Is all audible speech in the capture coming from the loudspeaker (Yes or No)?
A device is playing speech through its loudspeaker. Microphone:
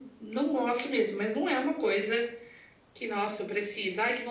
Yes